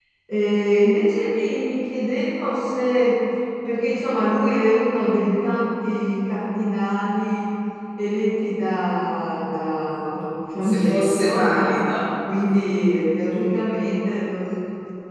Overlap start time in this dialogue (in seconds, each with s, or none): 10.6 s